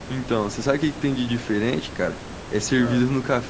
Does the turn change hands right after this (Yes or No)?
No